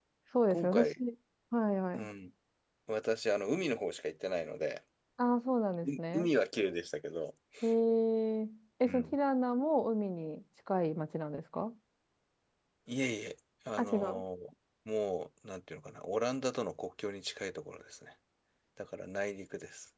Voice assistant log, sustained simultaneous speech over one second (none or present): none